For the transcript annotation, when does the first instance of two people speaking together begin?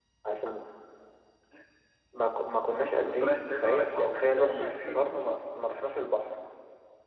3.0 s

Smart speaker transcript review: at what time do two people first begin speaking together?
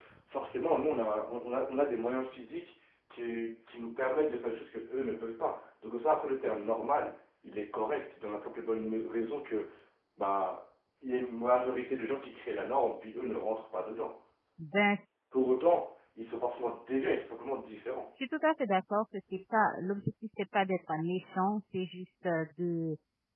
none

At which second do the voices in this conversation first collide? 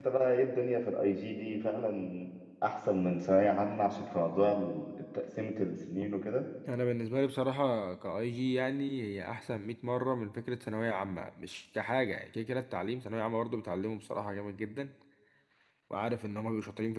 none

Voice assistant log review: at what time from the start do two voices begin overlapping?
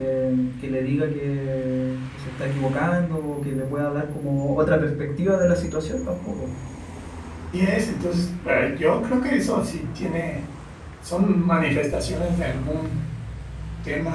none

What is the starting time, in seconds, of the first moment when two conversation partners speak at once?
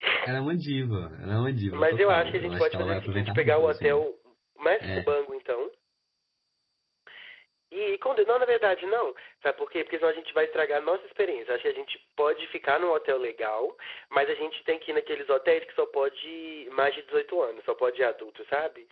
1.7 s

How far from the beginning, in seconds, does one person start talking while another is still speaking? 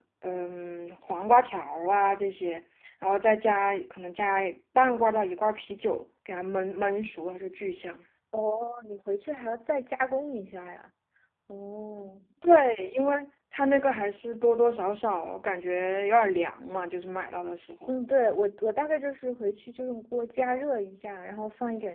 none

